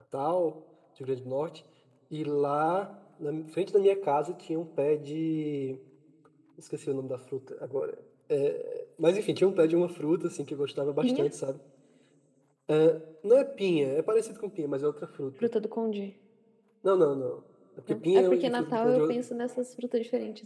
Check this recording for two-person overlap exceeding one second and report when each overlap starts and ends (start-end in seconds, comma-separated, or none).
17.9-19.1